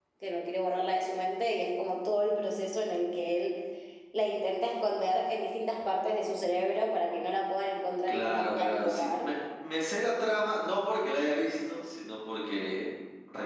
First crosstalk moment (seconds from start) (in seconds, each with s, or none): 8.1 s